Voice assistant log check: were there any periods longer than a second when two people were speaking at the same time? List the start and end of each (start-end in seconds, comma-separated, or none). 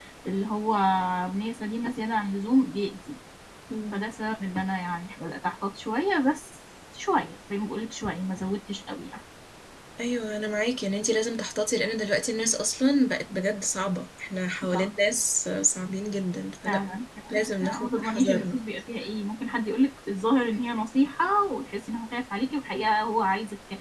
17.3-18.6